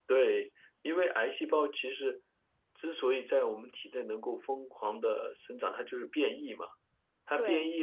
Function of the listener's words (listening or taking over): listening